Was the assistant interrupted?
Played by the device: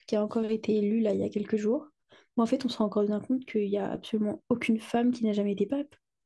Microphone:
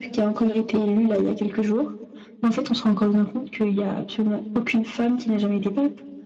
No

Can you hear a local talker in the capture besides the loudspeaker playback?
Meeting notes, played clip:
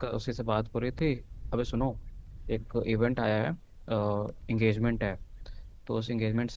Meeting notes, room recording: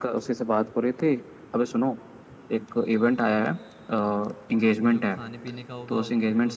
Yes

